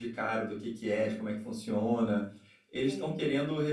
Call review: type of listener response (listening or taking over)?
listening